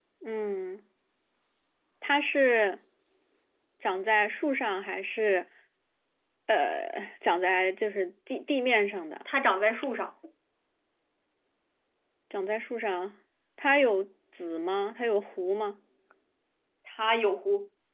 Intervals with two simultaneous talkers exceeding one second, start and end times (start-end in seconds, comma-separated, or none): none